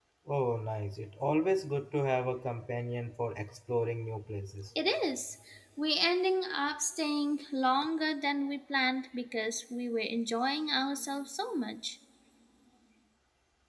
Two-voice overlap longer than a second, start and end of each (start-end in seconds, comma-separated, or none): none